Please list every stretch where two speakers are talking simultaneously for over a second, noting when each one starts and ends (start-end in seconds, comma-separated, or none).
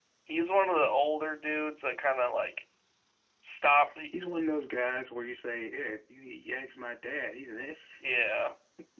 none